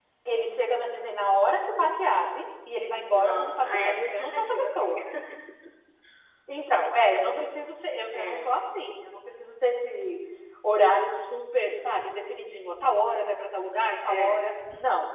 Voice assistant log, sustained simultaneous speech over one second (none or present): present